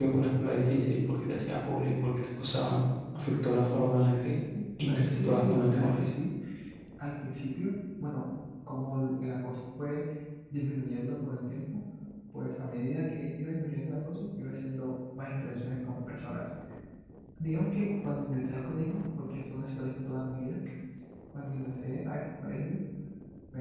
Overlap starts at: 5 s

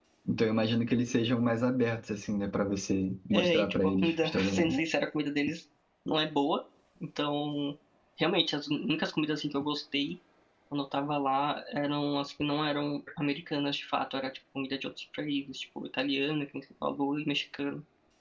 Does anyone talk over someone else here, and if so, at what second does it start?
3 s

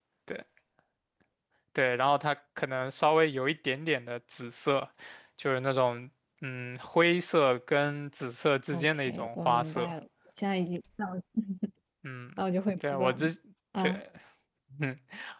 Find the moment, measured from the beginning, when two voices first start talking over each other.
9 s

